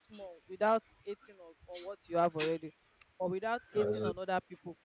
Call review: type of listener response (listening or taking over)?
listening